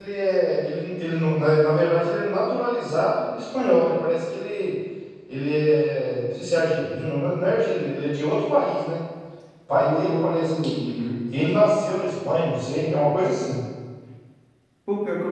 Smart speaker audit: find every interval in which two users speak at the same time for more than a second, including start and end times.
9.7-11.0

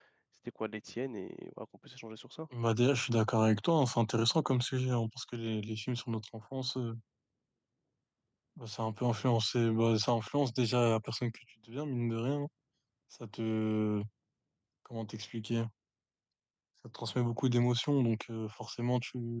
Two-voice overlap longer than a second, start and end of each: none

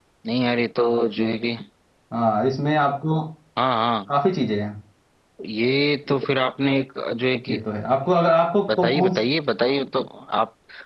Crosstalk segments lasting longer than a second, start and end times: none

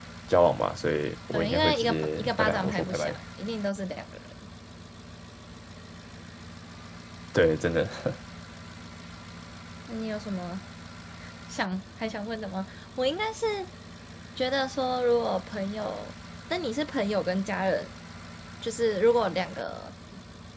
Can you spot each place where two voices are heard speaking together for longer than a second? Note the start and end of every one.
1.3-3.2

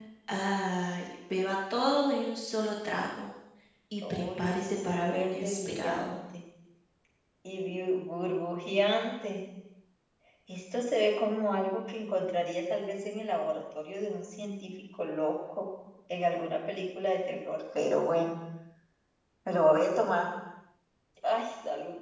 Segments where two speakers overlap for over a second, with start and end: 4.1-6.2

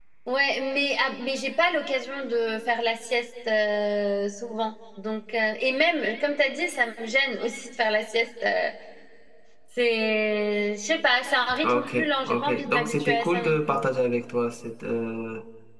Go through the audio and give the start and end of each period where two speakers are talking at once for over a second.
11.6-13.8

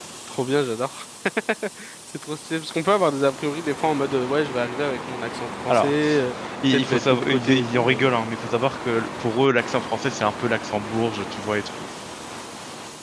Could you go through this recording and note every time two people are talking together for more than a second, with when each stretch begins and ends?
6.7-8.2

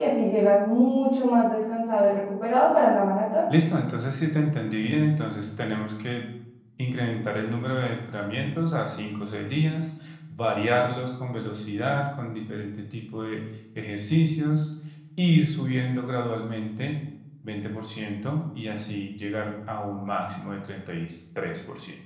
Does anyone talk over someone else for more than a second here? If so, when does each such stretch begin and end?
none

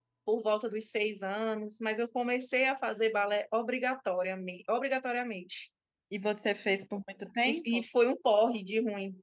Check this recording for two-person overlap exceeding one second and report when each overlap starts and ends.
none

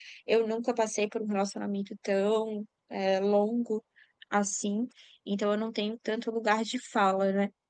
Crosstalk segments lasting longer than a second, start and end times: none

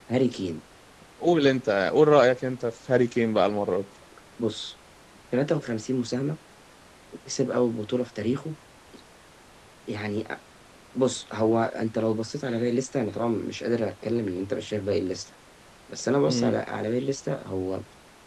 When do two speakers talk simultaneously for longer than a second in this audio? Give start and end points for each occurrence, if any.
none

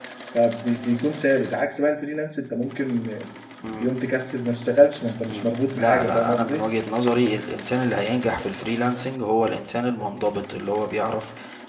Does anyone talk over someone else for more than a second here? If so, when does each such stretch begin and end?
5.3-6.6

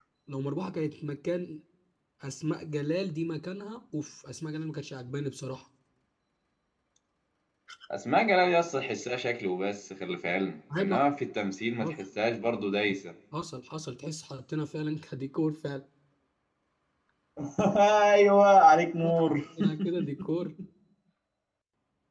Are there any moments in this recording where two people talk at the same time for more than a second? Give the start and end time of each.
none

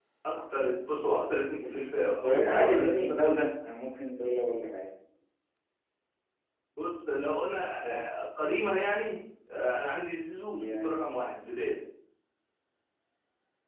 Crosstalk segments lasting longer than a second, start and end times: 2.2-3.5

